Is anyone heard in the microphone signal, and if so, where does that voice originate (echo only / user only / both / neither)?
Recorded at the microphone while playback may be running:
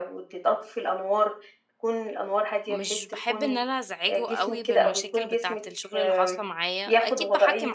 both